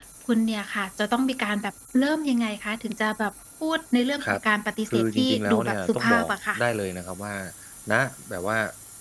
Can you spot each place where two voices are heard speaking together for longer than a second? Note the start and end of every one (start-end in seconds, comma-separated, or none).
4.9-6.6